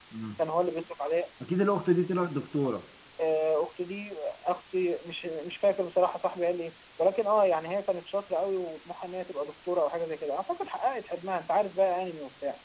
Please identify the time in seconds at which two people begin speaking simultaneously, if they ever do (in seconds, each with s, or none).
none